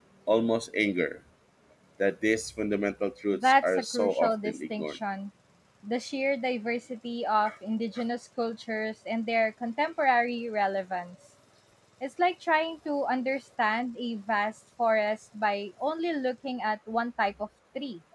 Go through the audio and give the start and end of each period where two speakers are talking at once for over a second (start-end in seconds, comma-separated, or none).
3.3-5.0